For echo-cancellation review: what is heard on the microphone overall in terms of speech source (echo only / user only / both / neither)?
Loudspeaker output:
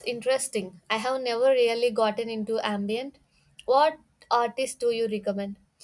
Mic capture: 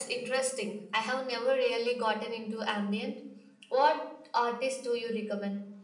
echo only